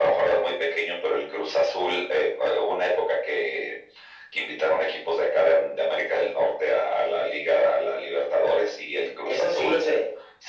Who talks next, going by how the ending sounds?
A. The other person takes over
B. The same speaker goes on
A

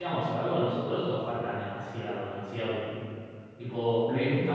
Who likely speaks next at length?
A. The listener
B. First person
B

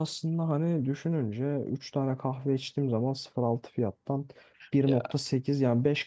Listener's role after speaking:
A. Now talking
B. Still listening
B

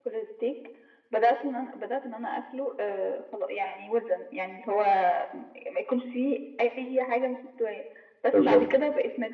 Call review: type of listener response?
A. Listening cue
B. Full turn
A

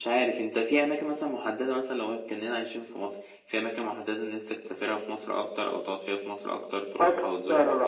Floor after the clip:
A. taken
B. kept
A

